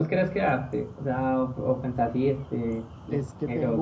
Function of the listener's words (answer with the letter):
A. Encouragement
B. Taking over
B